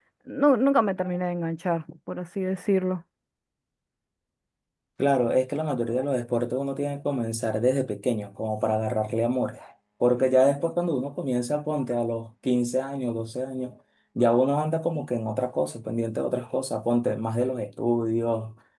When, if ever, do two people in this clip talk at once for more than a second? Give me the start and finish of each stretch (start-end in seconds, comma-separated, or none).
none